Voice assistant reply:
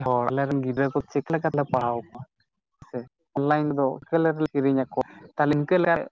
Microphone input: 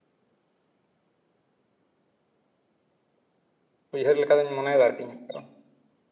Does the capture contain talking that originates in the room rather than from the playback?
Yes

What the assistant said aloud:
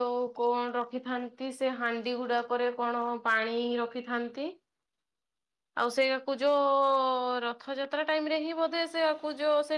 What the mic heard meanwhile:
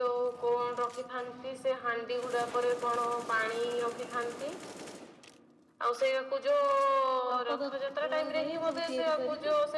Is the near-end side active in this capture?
Yes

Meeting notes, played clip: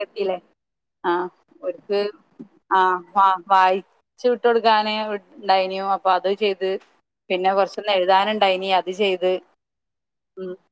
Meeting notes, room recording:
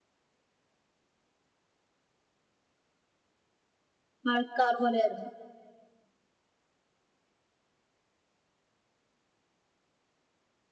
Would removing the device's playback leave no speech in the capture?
No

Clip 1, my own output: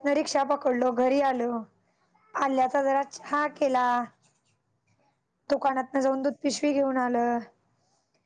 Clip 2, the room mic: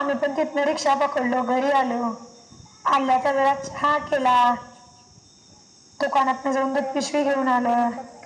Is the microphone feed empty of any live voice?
No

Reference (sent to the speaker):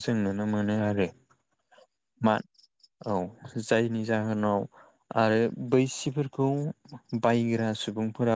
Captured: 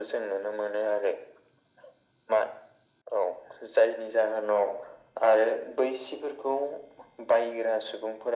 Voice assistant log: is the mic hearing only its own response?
Yes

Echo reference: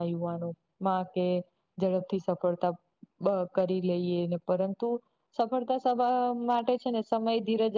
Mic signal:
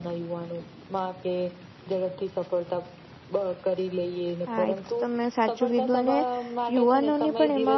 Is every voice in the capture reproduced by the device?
No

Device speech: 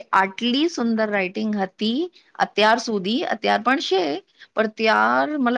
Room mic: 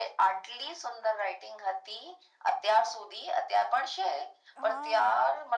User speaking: Yes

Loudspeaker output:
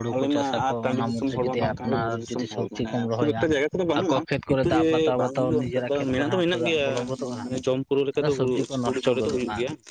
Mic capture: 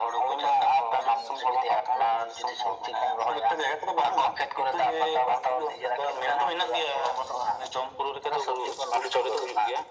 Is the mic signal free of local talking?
Yes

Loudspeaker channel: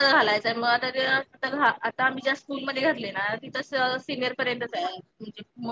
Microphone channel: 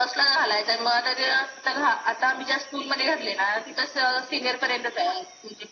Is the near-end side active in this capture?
No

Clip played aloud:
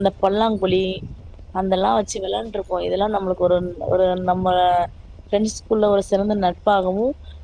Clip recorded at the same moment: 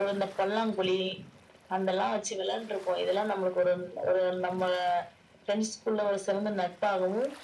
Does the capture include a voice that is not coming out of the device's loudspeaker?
No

